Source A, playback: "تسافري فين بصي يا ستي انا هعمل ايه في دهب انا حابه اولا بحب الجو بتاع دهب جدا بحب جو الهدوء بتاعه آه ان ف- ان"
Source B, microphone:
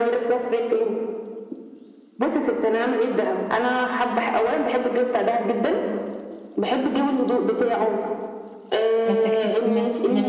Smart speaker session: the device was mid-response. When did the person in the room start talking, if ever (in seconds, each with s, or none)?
9.0 s